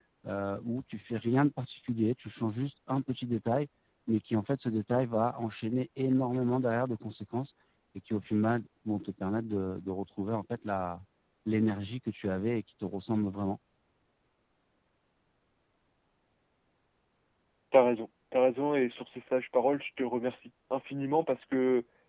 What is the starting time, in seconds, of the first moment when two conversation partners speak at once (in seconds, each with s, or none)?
none